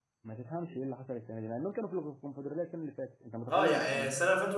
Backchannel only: No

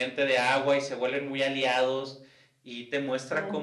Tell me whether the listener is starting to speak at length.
No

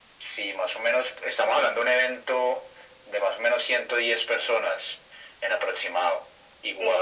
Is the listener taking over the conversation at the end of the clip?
No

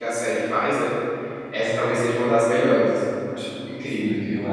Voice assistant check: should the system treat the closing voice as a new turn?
Yes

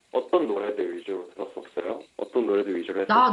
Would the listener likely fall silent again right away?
No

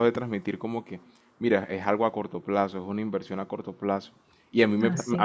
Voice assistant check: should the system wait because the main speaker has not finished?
Yes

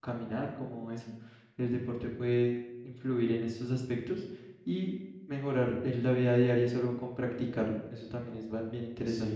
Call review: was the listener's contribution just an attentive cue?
No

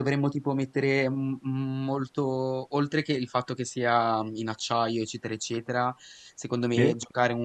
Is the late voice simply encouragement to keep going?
Yes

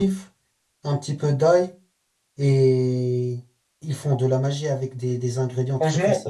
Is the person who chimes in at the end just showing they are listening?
No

